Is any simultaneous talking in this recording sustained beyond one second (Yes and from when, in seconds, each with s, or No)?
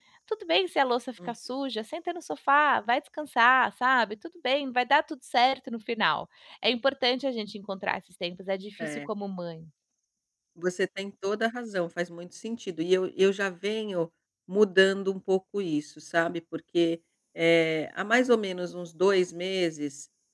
No